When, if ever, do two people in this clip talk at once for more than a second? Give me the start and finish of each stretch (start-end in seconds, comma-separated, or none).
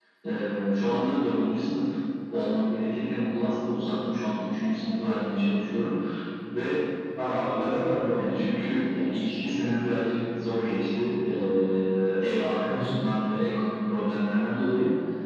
none